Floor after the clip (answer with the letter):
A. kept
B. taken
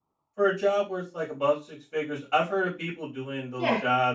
A